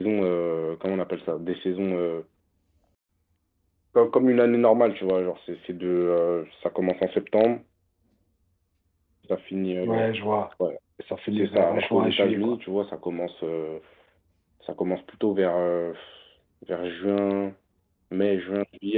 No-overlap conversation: No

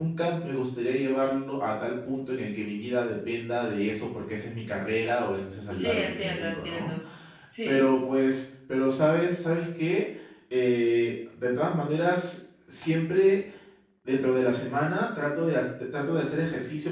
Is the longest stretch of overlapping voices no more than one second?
No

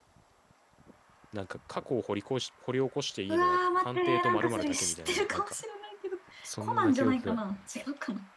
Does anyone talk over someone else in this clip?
Yes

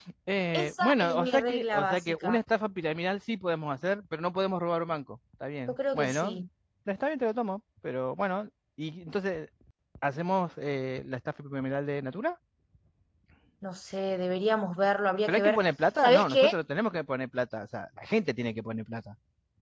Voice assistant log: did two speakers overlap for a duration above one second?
Yes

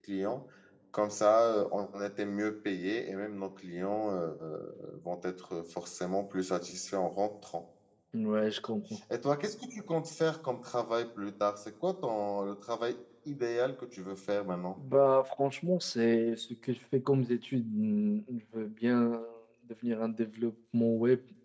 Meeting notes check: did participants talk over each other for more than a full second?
No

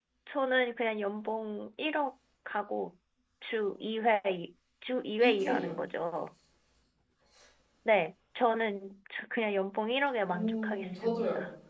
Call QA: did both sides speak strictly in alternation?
No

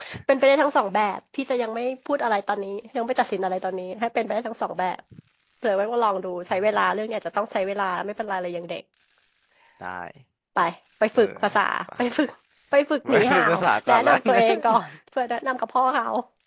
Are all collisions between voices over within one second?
No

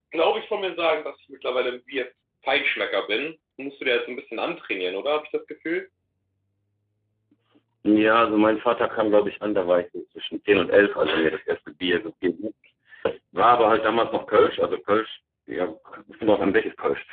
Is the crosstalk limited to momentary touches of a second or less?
Yes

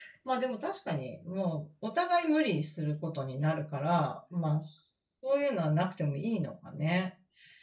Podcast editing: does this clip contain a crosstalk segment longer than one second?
No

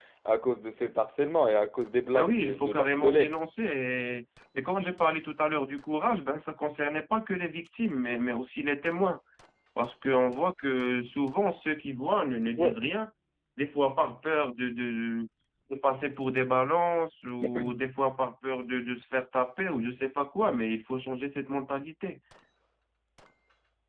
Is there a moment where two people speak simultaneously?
Yes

